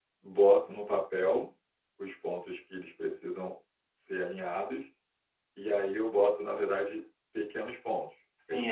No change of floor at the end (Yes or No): No